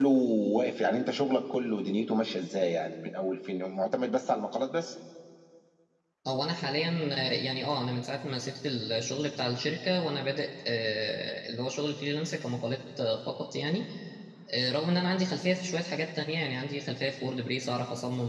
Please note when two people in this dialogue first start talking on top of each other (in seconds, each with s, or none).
none